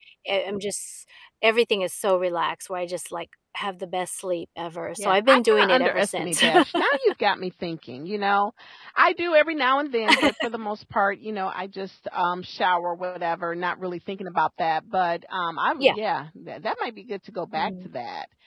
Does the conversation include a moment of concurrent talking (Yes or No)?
Yes